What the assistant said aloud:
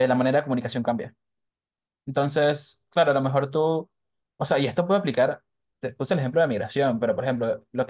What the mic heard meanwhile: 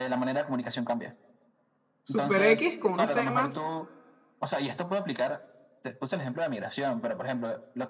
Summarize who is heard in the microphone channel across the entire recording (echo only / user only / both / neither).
both